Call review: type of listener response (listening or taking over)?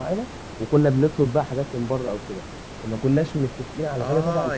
taking over